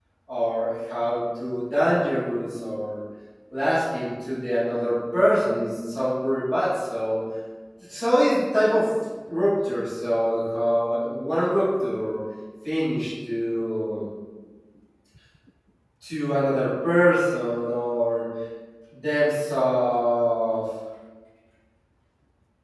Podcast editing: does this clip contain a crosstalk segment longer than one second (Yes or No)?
No